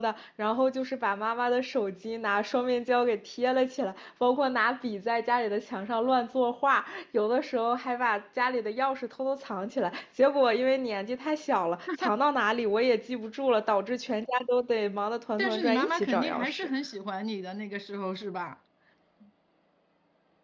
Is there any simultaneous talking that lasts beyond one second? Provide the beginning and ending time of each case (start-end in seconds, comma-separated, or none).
15.4-16.7